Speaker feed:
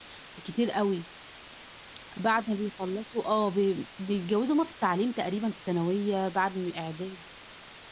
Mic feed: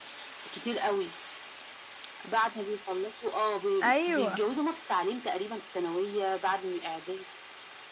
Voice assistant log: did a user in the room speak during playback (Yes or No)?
Yes